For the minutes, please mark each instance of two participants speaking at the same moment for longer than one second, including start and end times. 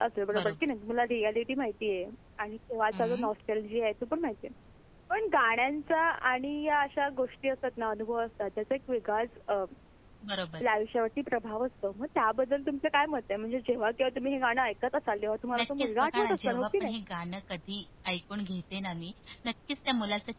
15.6-16.9

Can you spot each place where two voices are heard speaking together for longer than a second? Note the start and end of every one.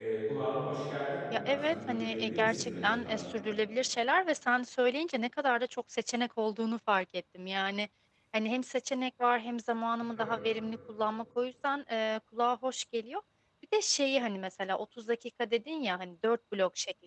1.3-3.1

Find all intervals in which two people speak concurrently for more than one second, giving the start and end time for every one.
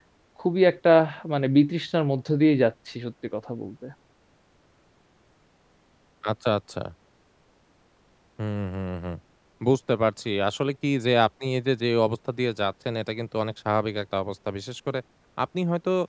none

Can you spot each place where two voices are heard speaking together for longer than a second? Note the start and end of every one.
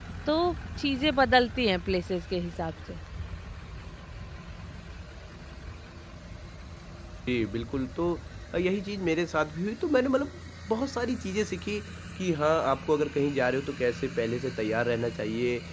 none

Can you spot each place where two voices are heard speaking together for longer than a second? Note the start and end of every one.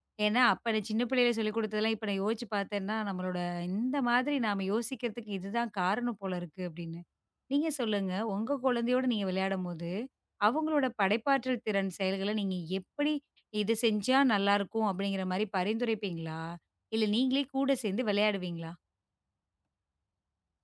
none

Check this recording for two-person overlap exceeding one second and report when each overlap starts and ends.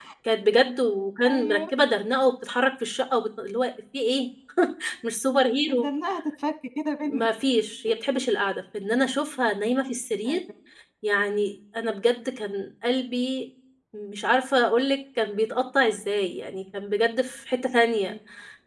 none

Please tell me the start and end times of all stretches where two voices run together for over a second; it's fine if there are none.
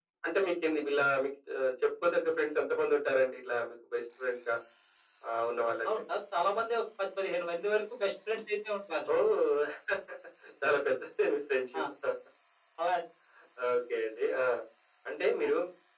none

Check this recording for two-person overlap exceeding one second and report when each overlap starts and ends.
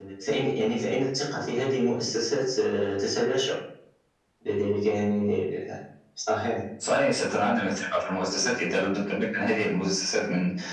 none

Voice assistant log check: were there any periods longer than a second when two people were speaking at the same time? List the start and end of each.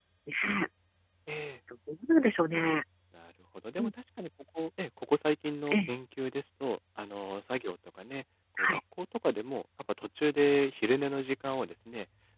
none

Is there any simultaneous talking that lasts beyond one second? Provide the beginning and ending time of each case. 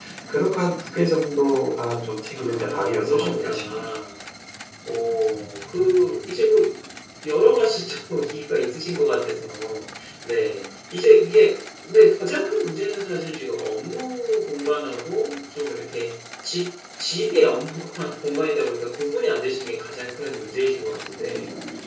2.3-3.9

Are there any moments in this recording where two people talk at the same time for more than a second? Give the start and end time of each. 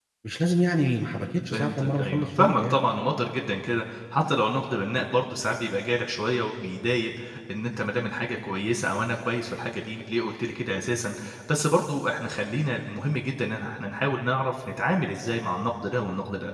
1.5-2.8

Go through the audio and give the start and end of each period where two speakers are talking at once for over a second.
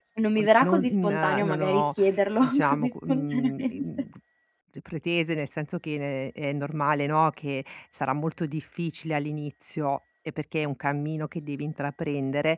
0.6-1.9, 2.4-3.9

